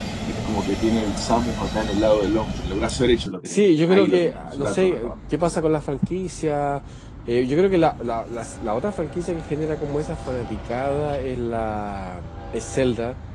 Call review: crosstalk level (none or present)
present